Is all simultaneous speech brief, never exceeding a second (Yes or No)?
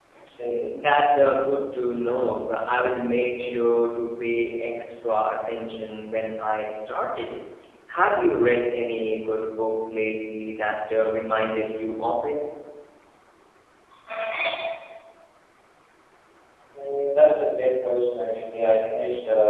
Yes